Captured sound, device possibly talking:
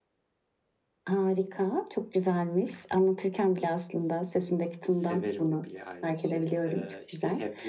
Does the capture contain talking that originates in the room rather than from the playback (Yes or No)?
Yes